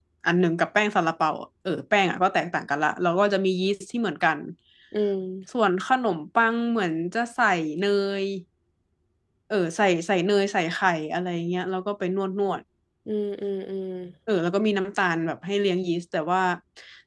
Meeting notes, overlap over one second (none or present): none